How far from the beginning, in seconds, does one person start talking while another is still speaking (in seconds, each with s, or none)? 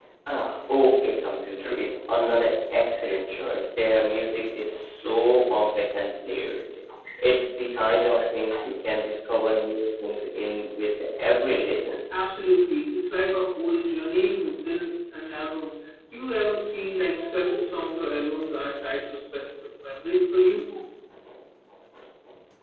none